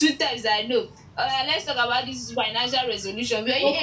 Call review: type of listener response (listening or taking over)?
listening